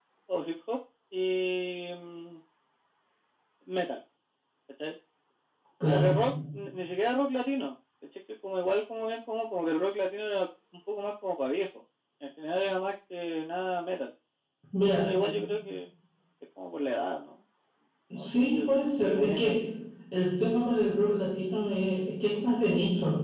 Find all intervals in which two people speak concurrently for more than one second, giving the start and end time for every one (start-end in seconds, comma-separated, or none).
18.2-19.6